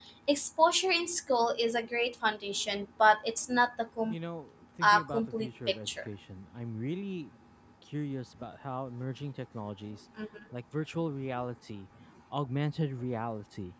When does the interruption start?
4.8 s

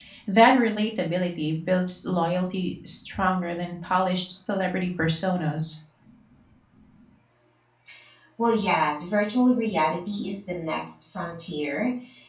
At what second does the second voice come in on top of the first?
none

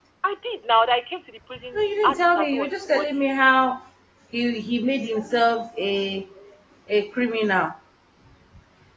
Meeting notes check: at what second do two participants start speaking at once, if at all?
1.7 s

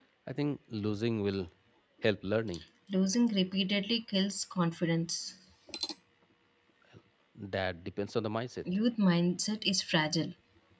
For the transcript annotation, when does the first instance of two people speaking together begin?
none

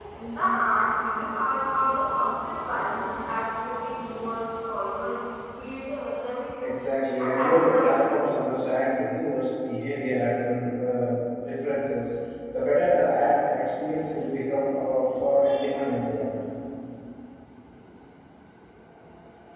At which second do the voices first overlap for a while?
7.2 s

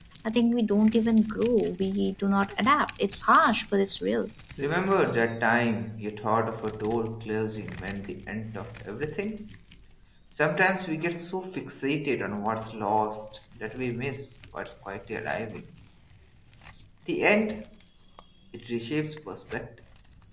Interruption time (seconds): none

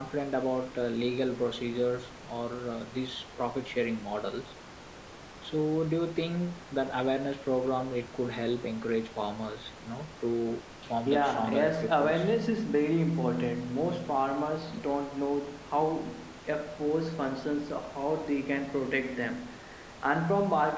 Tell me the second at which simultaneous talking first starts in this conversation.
11.0 s

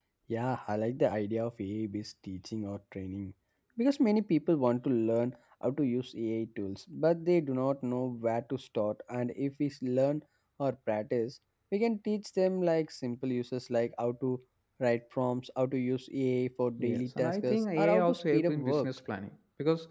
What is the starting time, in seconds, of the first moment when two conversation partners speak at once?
16.8 s

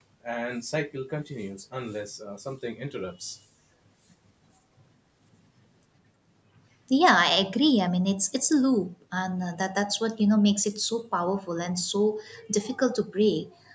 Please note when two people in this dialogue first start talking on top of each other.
none

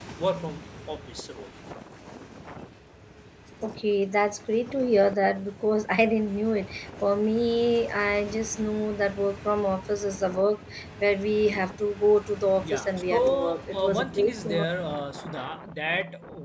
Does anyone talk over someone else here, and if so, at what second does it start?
12.6 s

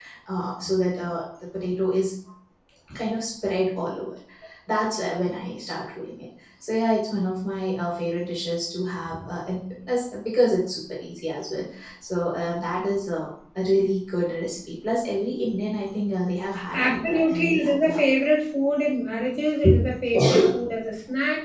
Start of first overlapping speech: 16.7 s

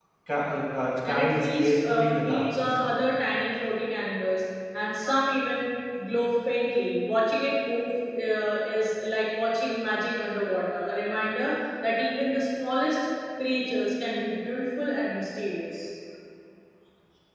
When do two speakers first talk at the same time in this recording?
1.0 s

